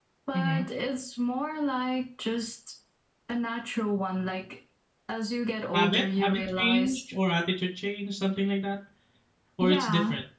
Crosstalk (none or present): present